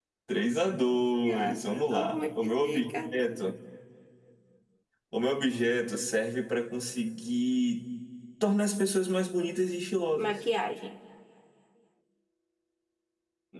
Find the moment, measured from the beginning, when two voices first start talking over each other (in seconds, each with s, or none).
1.2 s